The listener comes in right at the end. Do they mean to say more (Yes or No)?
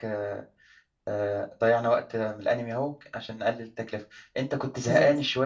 No